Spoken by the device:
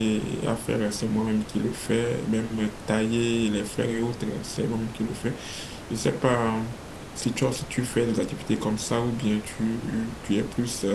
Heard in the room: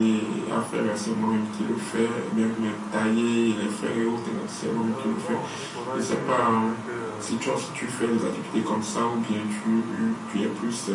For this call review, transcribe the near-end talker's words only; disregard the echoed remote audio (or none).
euh, bon, il faudra juste t'assurer que euh,